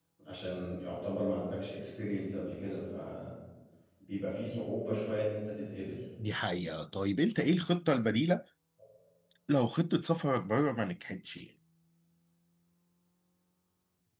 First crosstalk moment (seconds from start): none

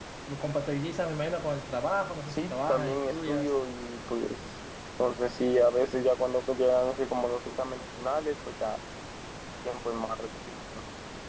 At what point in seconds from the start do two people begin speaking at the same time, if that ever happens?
2.3 s

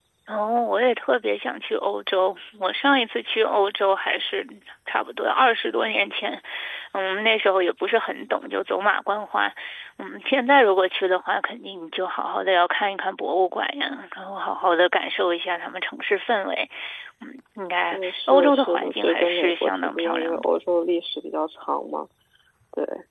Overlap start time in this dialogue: 17.9 s

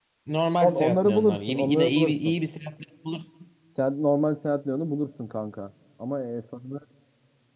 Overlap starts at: 0.6 s

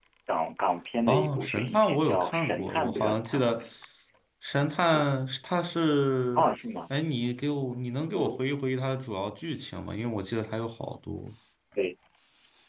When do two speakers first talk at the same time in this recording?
1.1 s

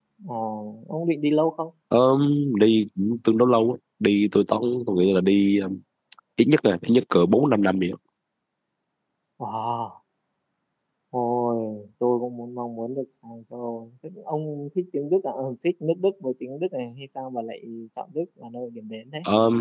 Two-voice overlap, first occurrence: none

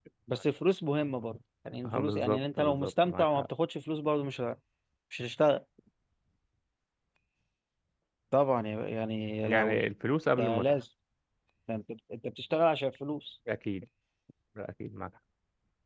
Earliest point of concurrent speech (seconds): 1.9 s

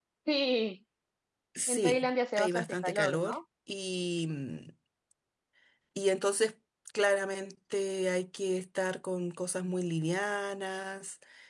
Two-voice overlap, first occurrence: 1.7 s

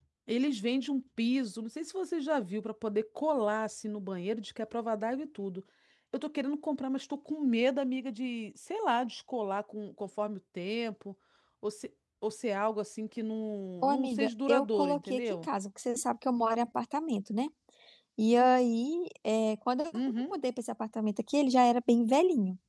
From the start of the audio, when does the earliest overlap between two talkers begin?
13.8 s

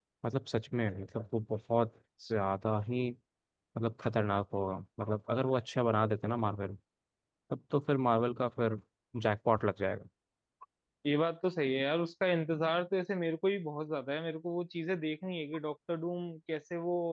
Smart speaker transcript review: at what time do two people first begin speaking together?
none

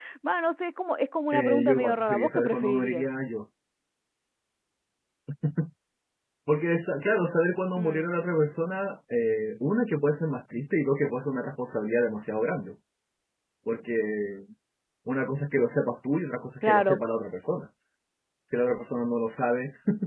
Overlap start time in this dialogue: 1.3 s

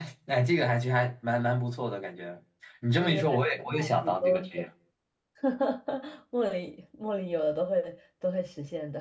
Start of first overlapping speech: 3.0 s

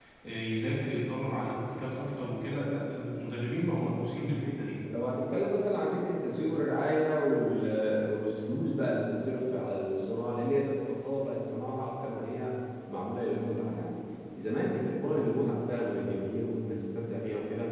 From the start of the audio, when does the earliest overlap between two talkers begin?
none

